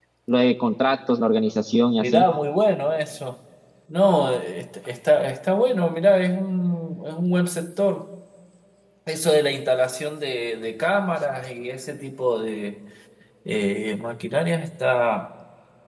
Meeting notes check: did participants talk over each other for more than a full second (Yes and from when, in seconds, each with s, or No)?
No